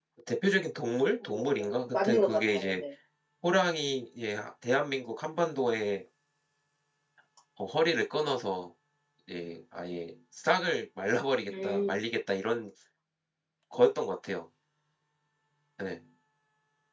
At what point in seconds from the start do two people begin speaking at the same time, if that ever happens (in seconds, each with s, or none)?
1.2 s